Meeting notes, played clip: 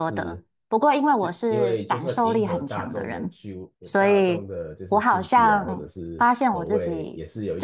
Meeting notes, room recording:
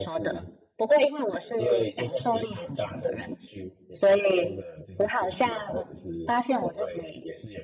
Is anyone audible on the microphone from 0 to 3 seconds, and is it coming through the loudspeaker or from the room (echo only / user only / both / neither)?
echo only